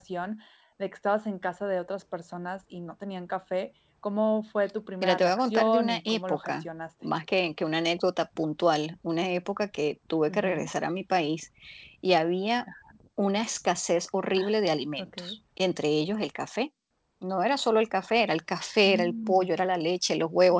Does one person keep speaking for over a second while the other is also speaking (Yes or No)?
Yes